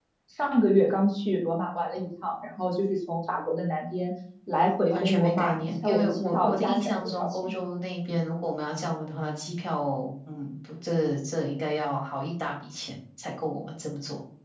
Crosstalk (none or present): present